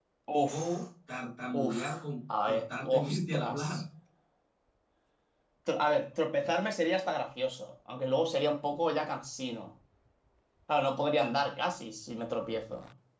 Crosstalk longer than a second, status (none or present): present